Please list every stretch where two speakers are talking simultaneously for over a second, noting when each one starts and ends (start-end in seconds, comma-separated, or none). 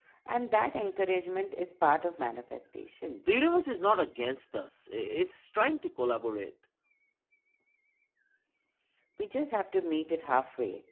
none